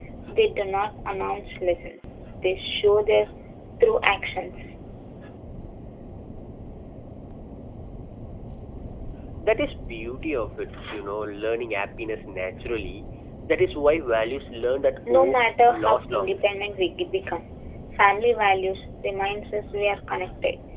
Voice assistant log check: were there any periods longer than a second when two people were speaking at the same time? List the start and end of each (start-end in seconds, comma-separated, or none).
15.1-16.5